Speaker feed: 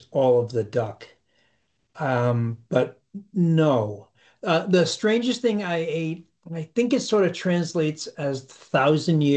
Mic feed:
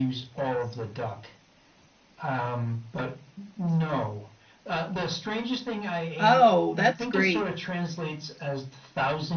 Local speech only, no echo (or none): Oh, that's great.